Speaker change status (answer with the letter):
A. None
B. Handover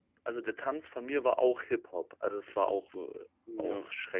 B